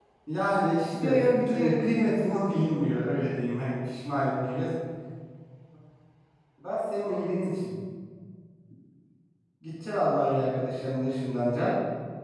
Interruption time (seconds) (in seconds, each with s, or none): 1.0 s